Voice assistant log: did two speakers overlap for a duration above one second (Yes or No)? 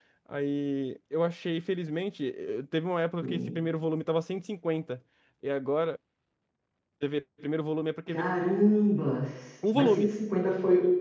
No